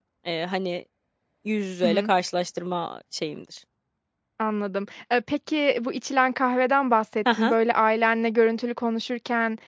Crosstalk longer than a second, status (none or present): none